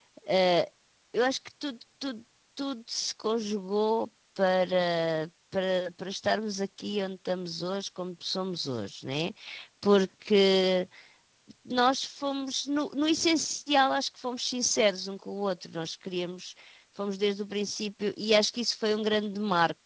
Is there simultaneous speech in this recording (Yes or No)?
No